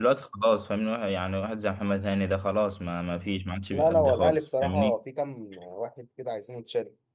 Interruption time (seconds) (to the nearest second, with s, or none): 4 s